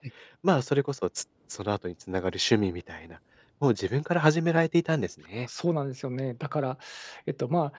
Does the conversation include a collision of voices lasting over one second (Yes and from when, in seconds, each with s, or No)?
No